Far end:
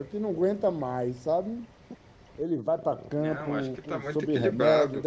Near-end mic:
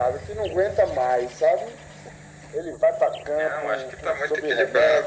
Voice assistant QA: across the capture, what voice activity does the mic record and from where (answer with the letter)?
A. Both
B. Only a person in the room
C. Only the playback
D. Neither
C